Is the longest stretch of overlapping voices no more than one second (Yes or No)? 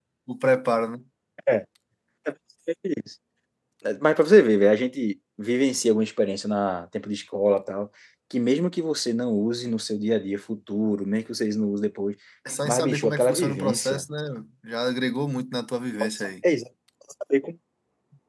No